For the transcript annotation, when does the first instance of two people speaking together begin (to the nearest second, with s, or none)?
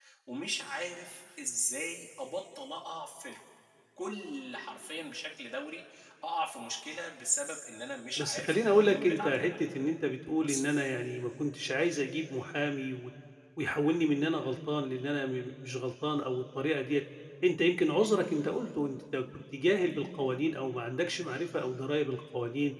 8 s